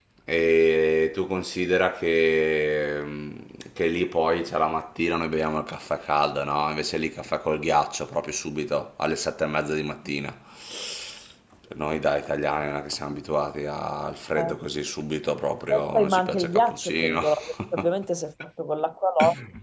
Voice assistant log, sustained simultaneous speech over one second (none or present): present